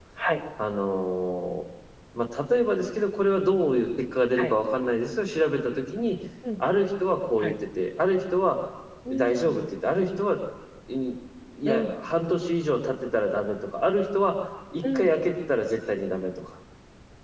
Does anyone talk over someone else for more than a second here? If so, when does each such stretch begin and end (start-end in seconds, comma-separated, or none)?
none